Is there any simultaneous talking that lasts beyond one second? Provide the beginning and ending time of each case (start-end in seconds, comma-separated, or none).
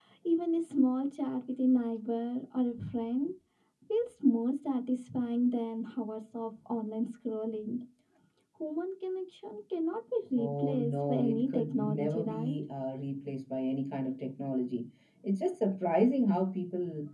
10.3-12.6